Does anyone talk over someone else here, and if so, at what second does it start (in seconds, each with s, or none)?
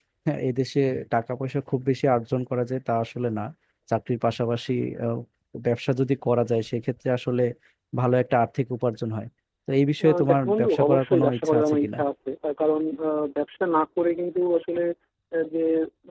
10.0 s